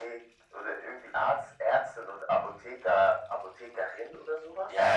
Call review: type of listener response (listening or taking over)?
taking over